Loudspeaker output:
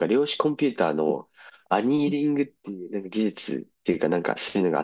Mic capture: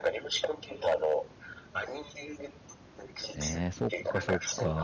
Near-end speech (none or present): present